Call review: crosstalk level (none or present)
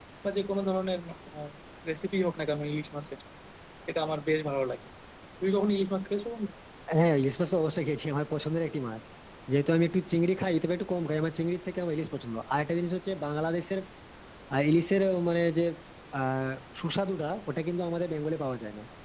none